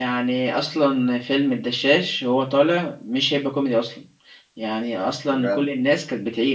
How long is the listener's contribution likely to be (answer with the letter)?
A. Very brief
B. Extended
A